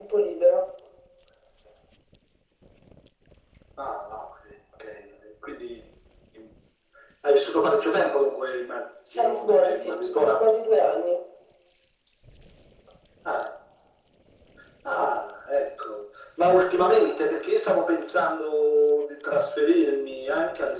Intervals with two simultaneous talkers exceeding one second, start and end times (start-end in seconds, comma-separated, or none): 9.2-10.4